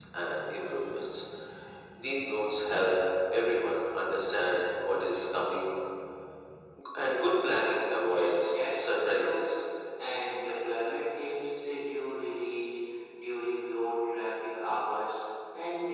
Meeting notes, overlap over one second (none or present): present